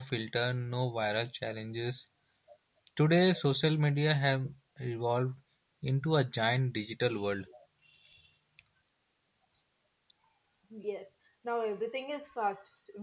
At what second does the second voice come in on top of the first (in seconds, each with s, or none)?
none